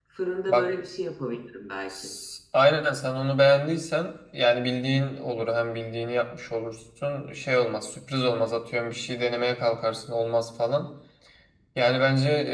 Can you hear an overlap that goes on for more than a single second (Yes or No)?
No